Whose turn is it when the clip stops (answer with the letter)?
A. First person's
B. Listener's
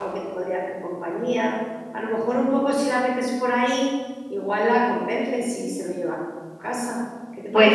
B